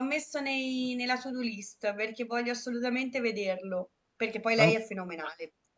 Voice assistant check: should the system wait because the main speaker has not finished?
Yes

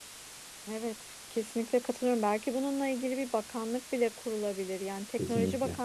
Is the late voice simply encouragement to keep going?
Yes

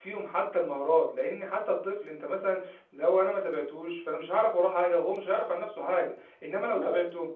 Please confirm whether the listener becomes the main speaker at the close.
No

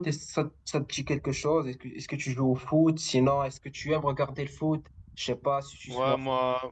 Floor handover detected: Yes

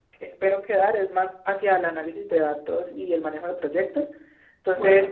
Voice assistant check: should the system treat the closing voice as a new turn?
No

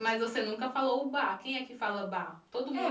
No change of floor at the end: No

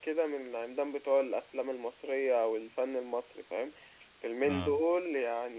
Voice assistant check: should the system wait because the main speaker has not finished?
Yes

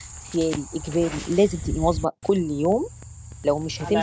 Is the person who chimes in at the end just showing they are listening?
Yes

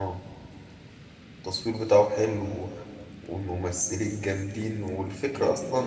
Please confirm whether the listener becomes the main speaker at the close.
No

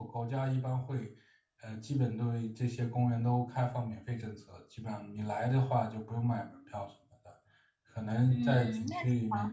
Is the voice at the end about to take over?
No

